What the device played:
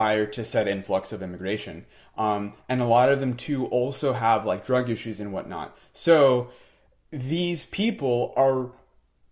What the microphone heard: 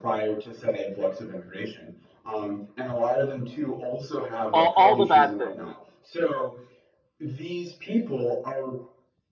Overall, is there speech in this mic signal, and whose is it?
both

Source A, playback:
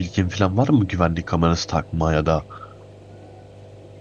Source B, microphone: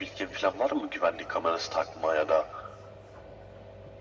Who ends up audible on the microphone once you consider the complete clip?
echo only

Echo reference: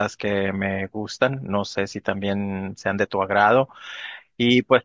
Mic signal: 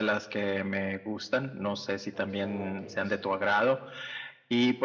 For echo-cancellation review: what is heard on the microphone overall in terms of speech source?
both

